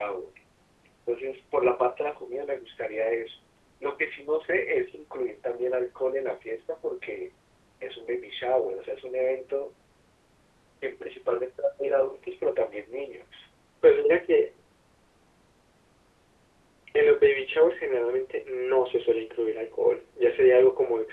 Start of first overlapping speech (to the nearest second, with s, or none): none